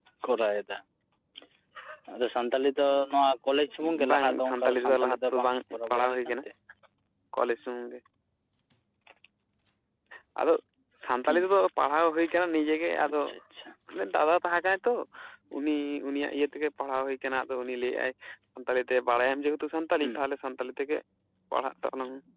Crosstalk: present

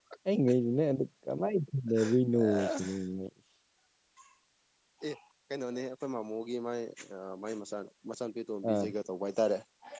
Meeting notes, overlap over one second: none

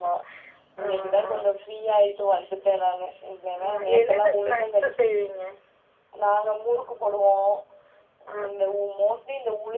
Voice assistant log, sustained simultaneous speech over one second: present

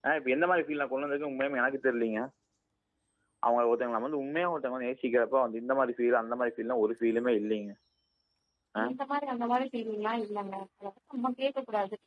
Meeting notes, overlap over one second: none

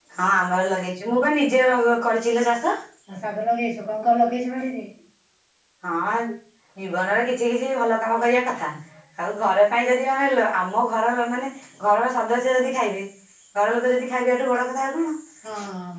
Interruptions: none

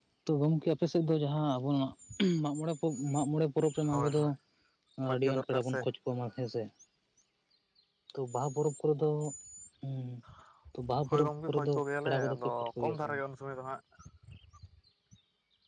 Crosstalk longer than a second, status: present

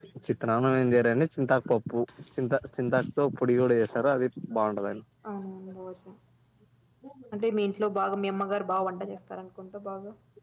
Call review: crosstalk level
none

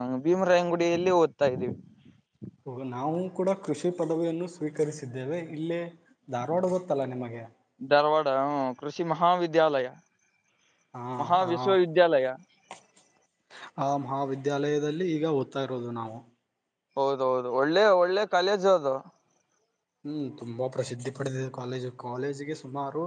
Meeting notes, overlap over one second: none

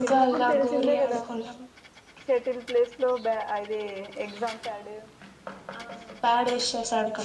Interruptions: present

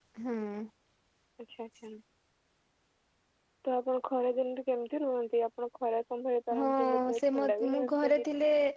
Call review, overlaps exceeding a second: present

